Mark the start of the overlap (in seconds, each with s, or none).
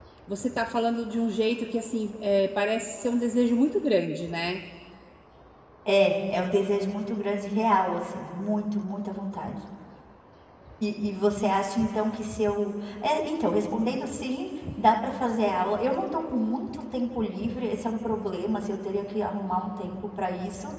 none